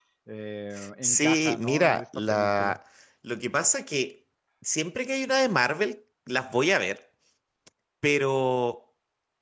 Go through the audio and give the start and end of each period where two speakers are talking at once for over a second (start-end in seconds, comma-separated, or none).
1.0-2.8